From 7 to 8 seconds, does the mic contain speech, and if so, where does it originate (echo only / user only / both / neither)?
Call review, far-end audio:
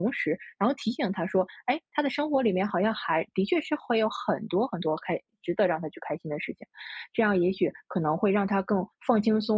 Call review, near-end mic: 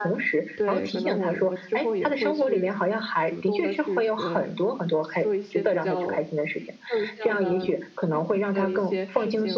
both